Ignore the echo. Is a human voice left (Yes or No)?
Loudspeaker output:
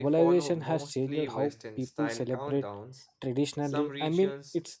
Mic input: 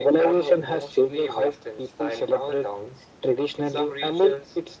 No